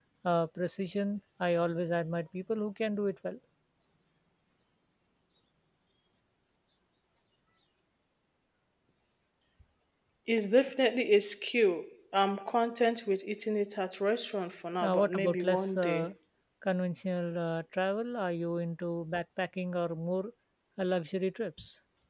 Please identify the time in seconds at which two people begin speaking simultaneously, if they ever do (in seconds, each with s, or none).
14.8 s